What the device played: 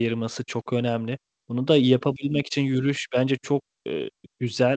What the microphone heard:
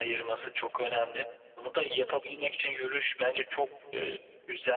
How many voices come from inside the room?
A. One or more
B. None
B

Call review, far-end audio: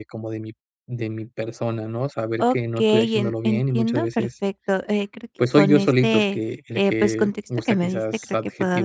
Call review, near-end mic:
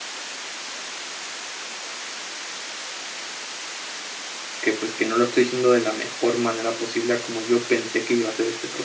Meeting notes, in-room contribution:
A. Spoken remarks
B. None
A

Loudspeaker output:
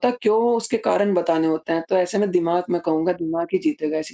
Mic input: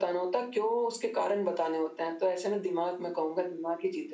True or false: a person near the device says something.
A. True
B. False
B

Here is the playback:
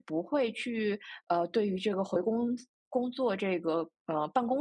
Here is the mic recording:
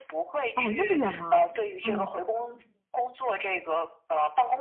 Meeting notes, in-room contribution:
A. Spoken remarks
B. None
A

